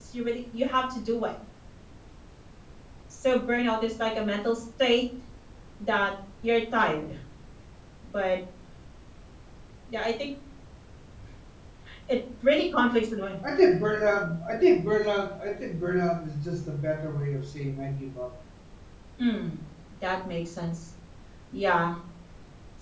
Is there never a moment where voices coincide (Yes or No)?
Yes